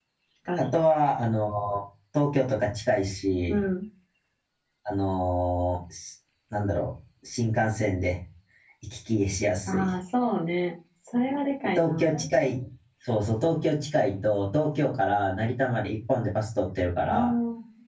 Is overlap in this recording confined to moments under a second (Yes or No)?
Yes